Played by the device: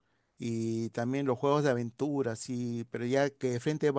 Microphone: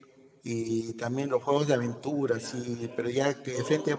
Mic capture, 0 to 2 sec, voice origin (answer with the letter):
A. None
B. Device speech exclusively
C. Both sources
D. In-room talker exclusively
B